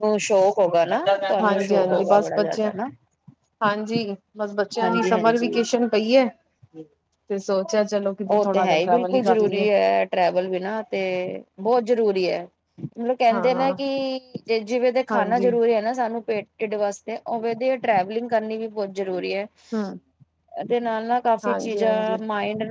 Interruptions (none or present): present